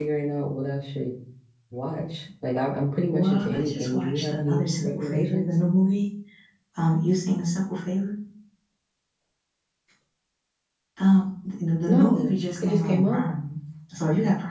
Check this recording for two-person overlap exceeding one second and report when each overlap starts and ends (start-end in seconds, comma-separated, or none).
3.1-5.5, 11.9-13.2